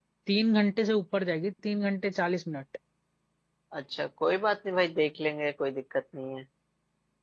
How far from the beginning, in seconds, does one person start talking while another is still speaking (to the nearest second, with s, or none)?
none